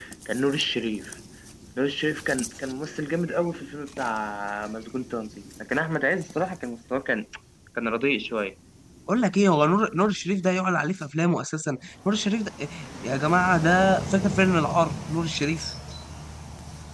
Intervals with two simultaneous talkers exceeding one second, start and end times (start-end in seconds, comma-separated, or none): none